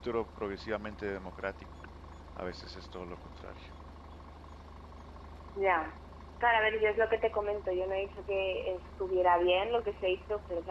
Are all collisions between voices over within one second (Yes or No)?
Yes